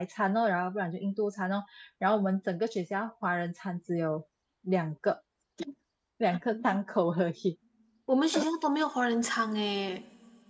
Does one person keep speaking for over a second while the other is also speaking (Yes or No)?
No